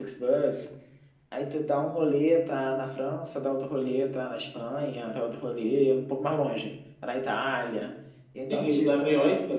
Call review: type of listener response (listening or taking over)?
taking over